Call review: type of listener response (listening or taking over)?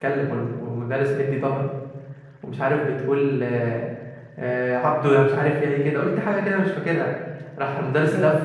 listening